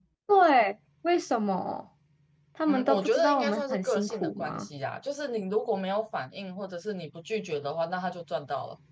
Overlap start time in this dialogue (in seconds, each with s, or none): 2.7 s